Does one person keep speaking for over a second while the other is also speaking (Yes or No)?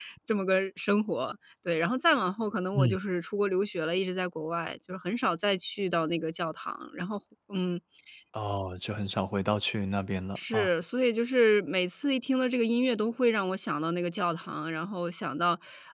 No